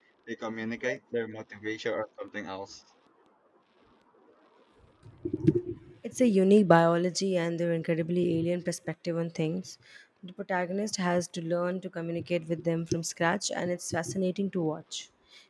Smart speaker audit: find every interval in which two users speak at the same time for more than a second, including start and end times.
none

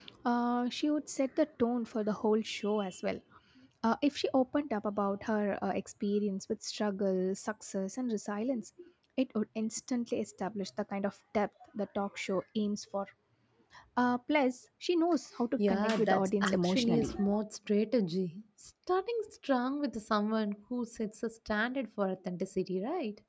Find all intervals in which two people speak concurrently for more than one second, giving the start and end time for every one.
15.6-17.1

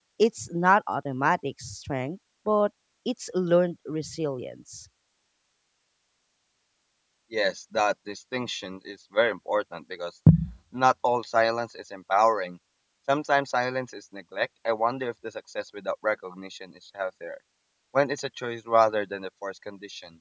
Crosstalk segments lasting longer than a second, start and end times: none

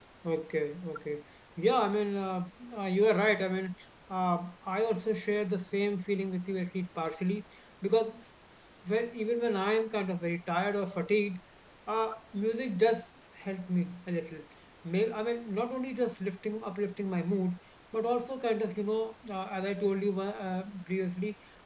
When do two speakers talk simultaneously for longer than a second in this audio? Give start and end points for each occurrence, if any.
none

